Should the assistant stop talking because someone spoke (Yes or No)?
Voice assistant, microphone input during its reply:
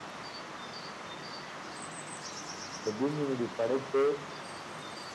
Yes